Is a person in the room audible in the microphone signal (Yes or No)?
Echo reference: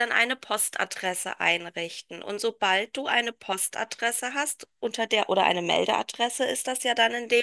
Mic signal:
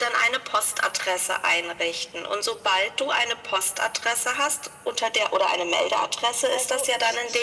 Yes